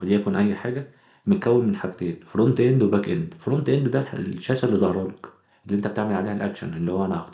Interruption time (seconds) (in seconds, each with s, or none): none